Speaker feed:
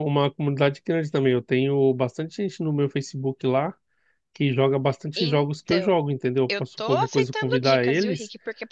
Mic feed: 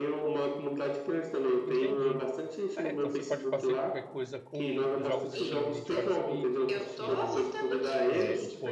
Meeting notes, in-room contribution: present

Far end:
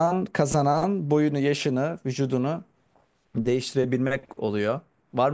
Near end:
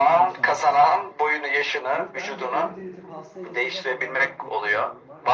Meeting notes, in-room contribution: present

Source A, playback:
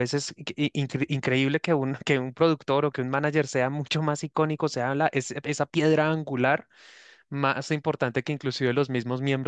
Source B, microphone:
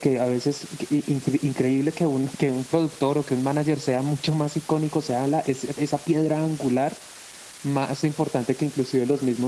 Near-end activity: none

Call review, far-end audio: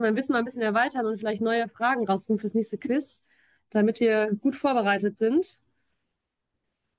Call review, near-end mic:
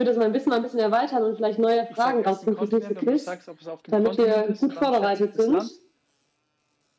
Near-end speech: present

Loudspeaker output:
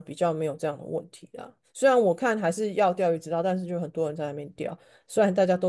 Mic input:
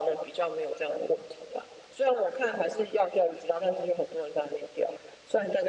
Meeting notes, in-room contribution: none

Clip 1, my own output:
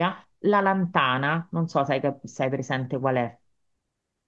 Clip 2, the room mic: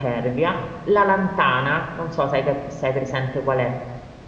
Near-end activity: none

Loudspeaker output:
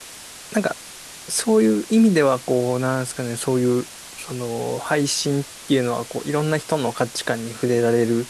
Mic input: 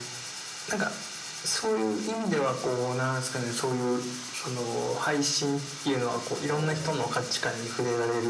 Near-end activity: present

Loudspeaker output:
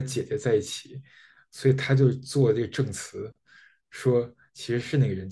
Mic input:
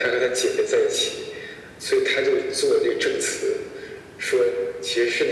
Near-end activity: none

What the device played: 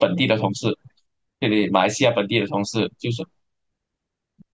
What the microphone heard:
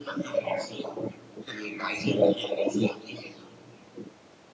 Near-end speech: none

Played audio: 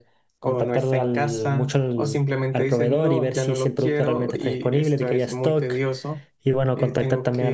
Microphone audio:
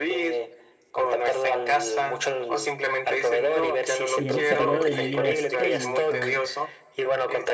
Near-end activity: present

